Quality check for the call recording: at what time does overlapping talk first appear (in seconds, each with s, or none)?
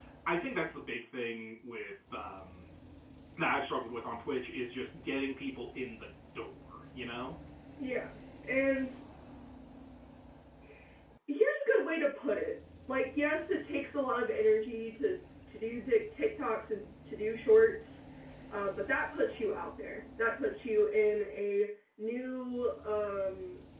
none